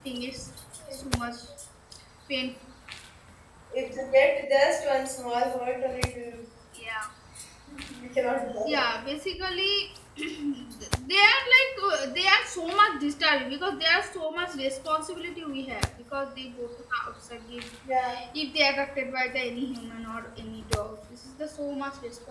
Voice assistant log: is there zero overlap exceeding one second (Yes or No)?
Yes